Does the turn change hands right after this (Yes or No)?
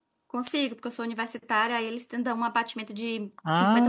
Yes